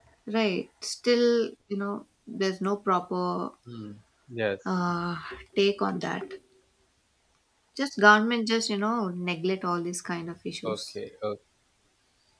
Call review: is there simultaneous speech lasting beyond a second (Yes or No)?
No